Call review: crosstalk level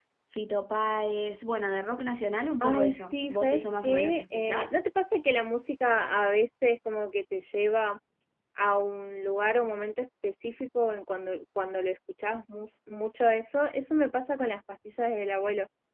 present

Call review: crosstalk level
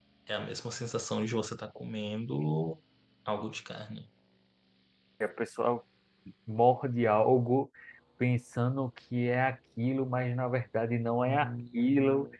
none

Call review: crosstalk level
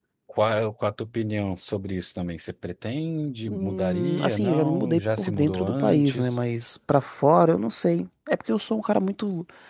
present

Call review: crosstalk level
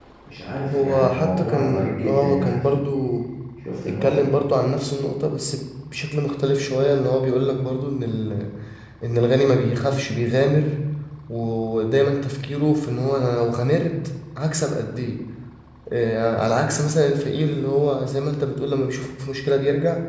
present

